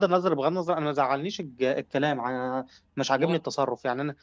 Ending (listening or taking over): listening